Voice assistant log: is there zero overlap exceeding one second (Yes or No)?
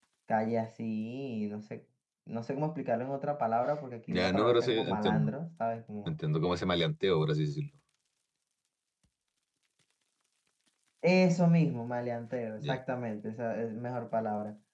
No